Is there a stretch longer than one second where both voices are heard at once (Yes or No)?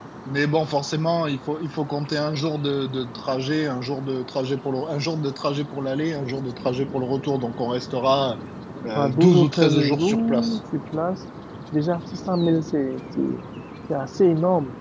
Yes